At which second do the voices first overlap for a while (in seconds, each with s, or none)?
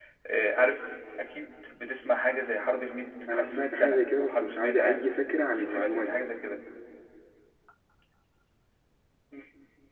3.3 s